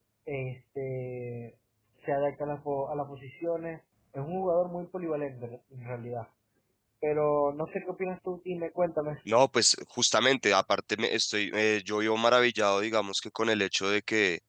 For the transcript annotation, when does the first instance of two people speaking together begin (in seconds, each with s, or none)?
none